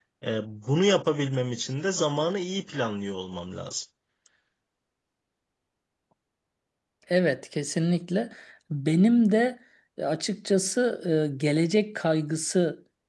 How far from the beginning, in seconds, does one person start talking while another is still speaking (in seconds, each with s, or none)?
none